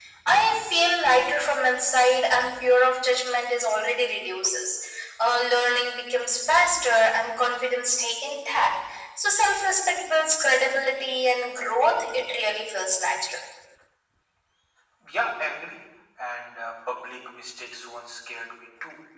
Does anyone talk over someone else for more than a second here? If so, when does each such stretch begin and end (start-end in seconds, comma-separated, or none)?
none